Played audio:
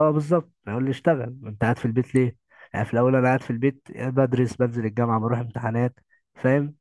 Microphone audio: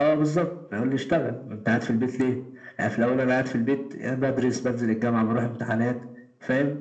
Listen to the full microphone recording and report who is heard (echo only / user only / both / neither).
echo only